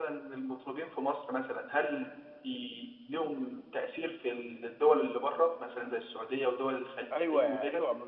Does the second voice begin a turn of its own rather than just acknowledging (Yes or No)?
Yes